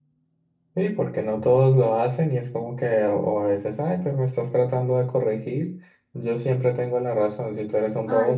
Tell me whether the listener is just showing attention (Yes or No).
Yes